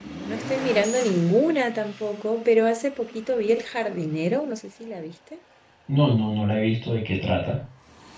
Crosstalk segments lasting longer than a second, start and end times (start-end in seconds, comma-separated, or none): none